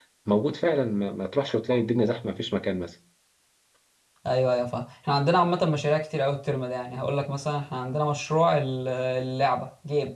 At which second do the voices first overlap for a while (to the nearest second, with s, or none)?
none